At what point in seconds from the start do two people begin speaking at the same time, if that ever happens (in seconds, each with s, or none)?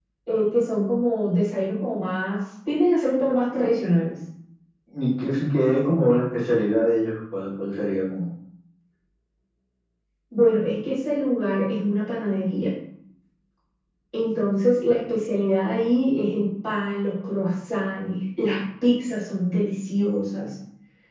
none